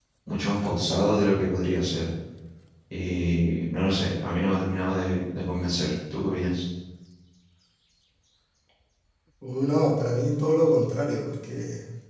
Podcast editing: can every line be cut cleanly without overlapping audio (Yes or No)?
Yes